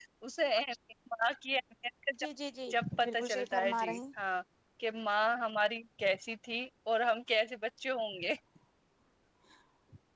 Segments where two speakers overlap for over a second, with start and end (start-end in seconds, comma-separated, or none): 2.7-4.0